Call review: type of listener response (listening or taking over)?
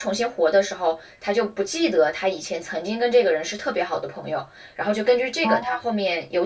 listening